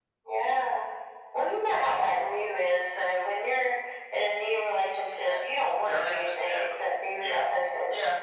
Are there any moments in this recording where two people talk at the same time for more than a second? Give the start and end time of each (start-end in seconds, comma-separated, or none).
5.8-7.4